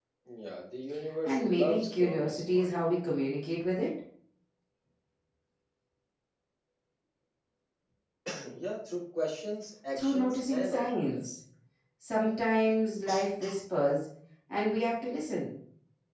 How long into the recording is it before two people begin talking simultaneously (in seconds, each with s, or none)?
1.2 s